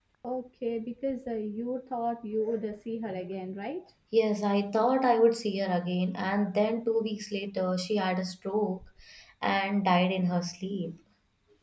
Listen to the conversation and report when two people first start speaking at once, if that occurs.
none

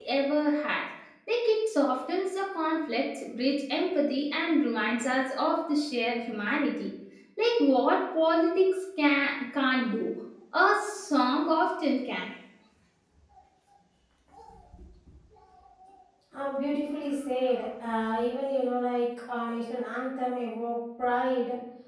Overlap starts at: none

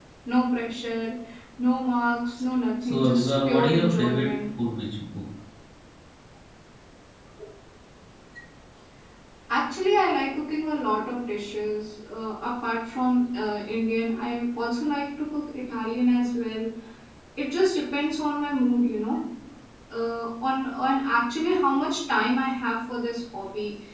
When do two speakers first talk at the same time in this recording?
2.8 s

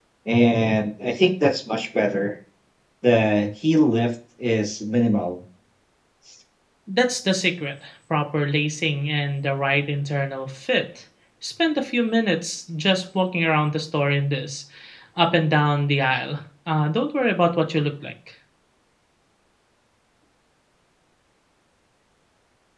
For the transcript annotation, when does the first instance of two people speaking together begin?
none

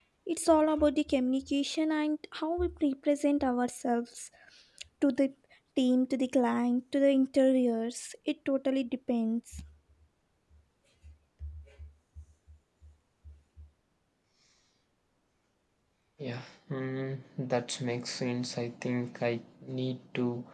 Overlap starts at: none

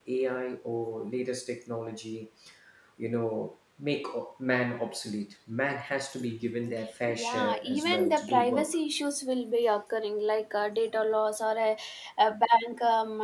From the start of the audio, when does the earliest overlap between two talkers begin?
7.1 s

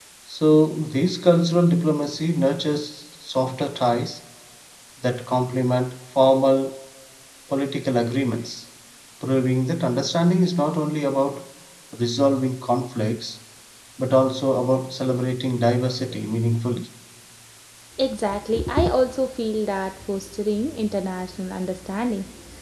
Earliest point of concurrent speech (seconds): none

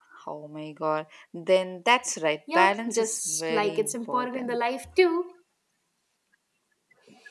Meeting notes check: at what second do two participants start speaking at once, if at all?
2.5 s

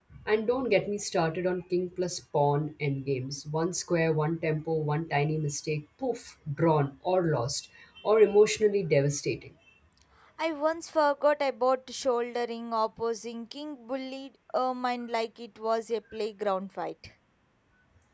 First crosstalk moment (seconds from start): none

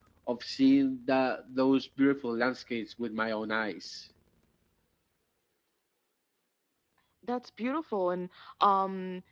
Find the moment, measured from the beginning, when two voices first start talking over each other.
none

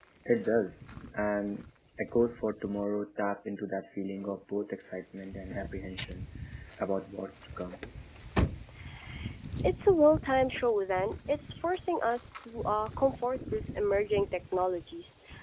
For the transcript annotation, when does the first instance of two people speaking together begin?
none

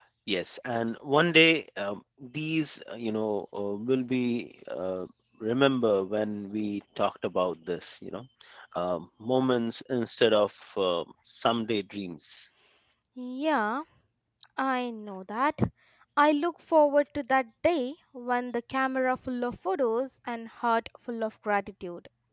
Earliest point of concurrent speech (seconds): none

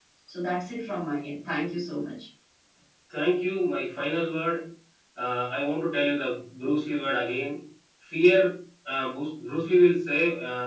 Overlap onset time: none

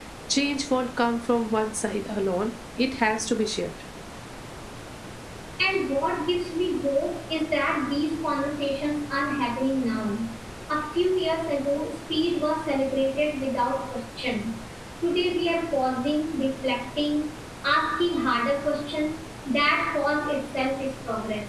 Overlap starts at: none

